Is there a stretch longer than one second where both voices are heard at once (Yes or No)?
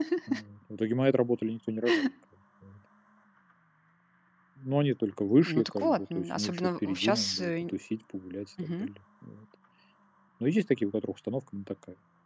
Yes